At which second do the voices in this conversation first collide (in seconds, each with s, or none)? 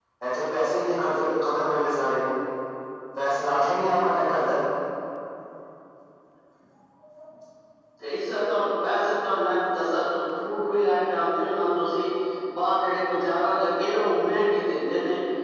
none